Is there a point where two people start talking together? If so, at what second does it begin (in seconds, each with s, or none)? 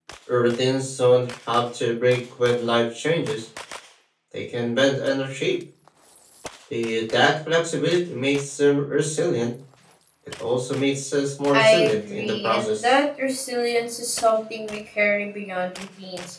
11.5 s